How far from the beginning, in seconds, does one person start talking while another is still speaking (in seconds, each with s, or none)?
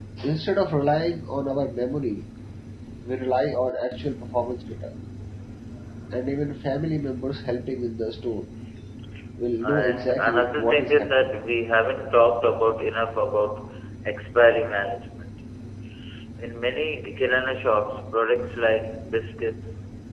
9.6 s